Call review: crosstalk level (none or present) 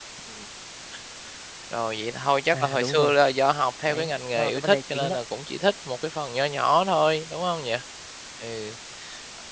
present